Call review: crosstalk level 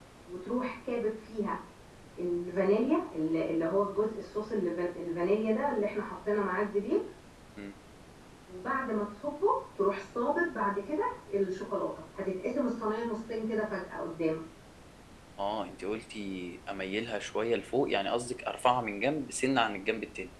none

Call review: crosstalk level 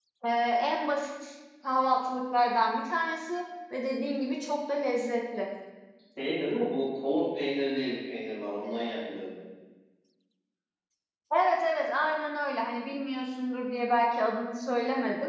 none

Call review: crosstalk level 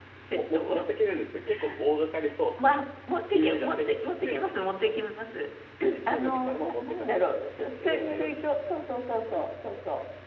present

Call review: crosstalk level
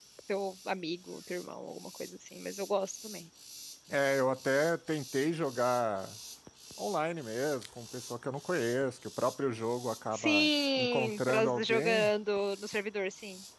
present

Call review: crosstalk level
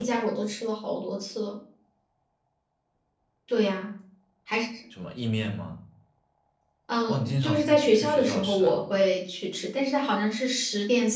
present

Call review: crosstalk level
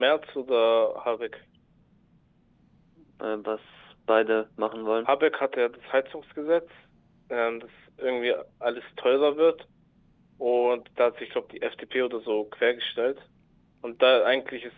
none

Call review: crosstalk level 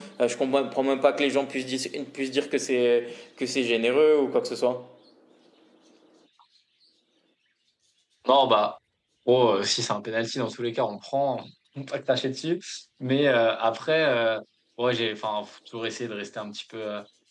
none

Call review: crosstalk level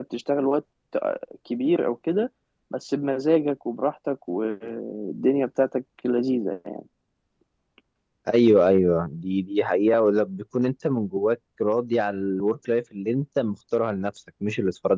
none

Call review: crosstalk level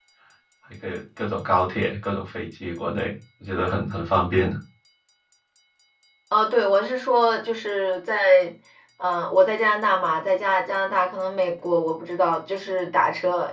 none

